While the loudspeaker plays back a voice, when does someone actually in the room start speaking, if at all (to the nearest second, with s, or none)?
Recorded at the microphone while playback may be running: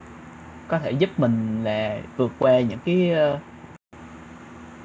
1 s